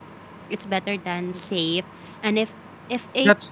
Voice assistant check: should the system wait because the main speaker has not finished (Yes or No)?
Yes